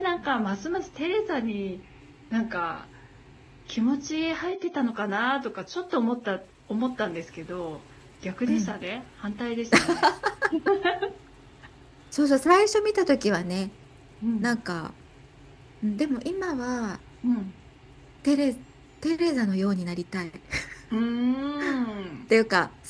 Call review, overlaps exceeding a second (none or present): none